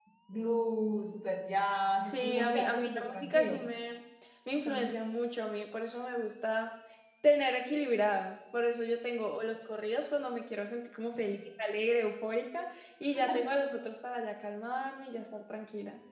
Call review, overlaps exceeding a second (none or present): present